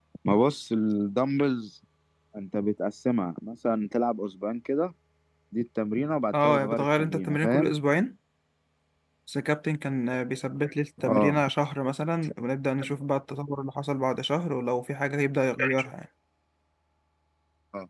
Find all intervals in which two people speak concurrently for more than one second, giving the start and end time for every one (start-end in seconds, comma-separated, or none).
6.3-7.7